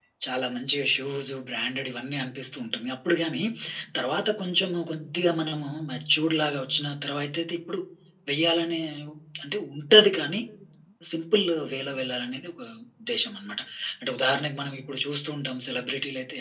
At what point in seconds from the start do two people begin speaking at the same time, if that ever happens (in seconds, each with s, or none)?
none